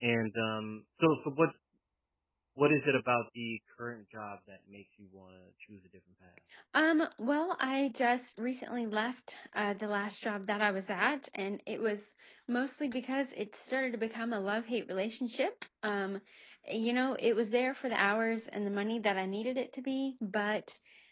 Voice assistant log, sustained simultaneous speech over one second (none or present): none